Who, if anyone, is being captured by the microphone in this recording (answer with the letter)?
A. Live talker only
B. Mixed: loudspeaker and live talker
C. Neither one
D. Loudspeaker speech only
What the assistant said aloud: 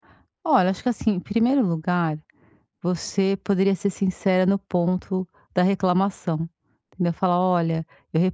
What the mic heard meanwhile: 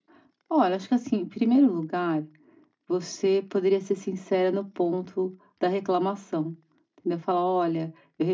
D